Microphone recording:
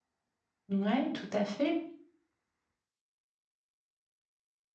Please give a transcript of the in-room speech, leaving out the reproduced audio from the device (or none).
Ouais, tout à fait.